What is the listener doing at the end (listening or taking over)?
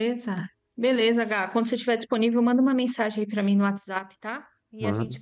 listening